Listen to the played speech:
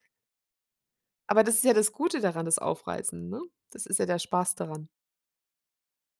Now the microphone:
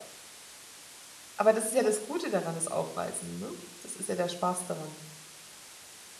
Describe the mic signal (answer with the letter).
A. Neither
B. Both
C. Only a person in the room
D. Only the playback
D